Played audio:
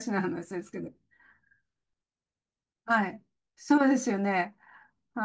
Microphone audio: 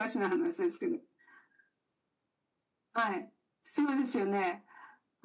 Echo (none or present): present